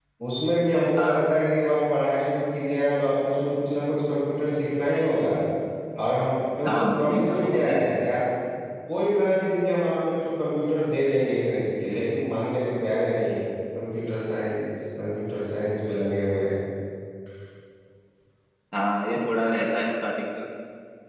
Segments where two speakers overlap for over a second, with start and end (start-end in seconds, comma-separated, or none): 6.6-7.9